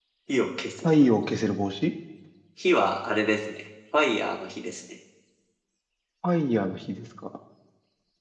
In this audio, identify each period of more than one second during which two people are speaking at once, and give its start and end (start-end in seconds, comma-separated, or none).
none